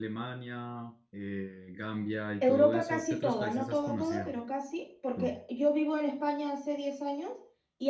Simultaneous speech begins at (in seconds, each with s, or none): 2.4 s